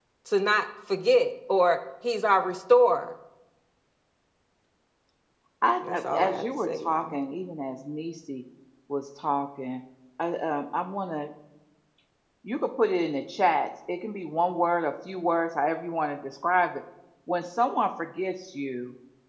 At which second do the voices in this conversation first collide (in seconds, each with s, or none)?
5.8 s